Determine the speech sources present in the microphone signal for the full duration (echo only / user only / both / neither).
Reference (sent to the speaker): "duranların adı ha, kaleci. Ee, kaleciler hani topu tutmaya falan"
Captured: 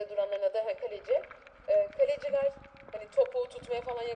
echo only